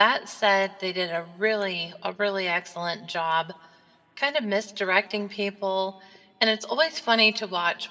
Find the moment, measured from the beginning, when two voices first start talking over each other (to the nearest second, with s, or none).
none